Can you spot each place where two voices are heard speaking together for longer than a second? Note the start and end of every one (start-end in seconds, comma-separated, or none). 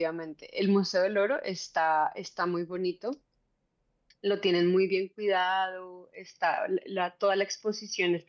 none